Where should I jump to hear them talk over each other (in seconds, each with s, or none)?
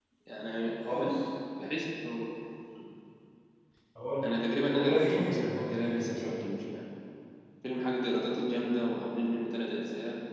4.7 s